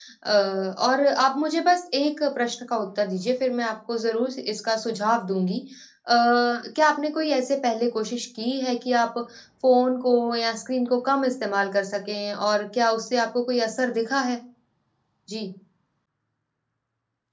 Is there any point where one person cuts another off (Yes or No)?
No